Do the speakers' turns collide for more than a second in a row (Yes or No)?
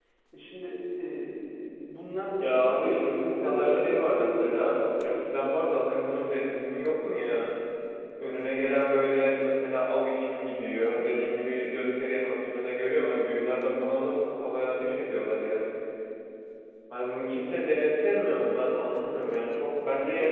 Yes